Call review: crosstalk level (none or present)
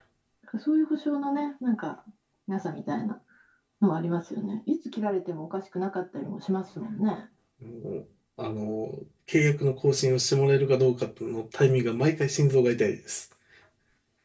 none